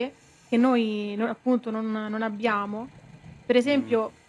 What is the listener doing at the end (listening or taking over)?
listening